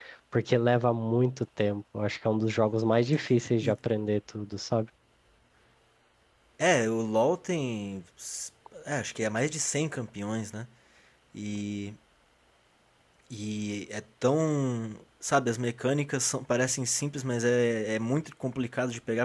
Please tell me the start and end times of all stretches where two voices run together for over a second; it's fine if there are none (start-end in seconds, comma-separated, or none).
none